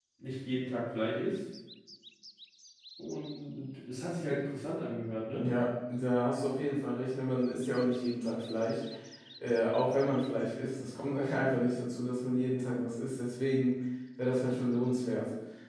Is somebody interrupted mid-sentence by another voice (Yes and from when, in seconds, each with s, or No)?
No